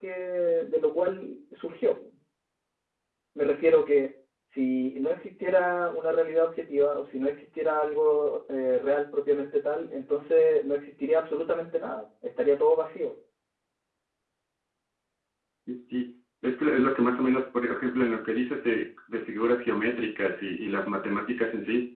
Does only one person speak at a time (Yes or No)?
Yes